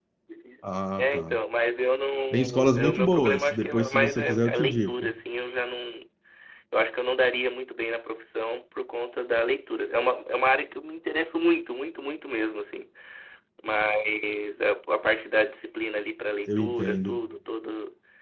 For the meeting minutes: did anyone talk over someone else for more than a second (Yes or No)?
Yes